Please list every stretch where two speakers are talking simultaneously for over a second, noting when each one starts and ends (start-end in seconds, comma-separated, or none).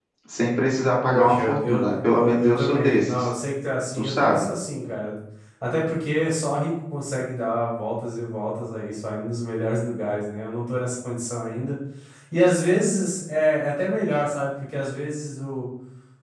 1.0-3.3